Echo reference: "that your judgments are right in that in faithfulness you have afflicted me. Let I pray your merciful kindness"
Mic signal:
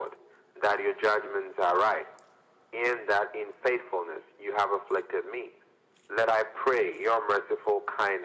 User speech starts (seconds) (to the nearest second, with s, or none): none